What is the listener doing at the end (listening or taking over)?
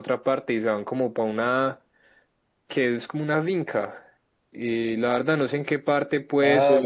taking over